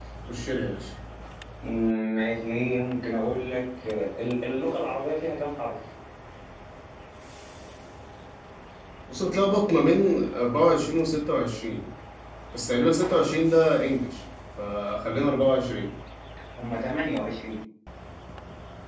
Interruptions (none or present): none